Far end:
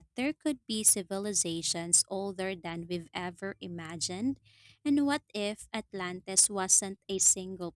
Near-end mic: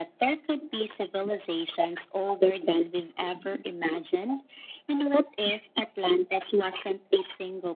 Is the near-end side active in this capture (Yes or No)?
No